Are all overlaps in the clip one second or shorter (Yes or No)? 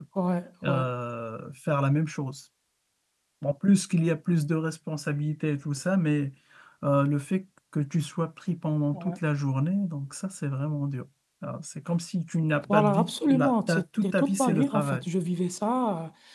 No